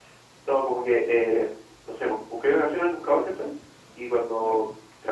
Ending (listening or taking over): listening